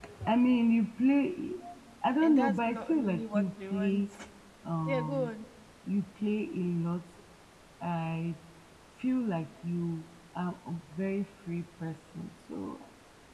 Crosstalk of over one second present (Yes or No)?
Yes